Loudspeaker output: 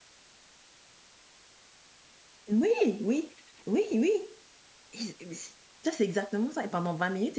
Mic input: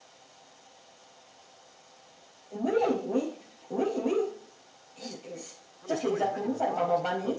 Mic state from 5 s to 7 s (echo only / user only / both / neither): both